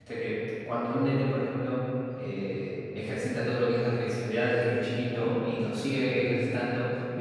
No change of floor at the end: Yes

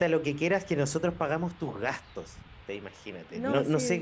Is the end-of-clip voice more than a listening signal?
No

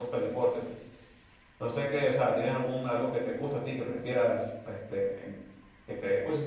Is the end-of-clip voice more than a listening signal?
Yes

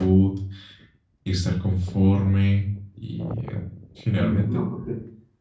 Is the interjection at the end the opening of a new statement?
Yes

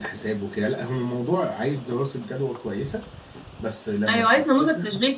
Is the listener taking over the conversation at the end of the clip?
Yes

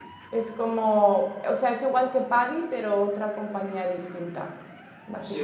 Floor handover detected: Yes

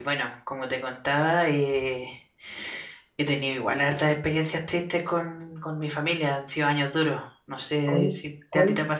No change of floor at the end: No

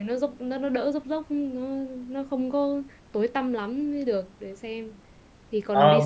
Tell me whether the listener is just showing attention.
No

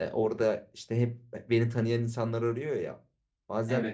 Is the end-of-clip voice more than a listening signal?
No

